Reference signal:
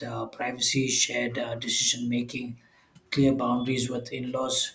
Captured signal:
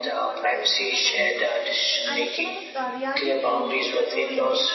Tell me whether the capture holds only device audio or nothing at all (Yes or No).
No